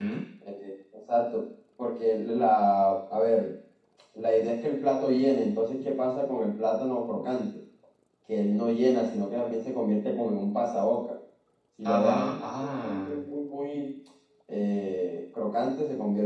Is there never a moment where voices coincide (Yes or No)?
No